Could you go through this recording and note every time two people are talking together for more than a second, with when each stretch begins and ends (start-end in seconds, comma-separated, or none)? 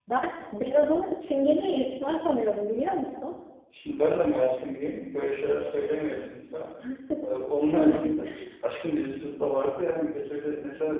none